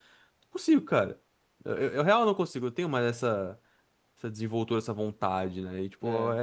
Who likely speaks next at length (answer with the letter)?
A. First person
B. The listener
A